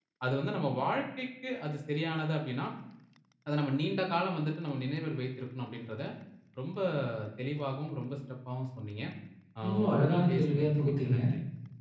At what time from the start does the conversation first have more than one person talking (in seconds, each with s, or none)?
9.6 s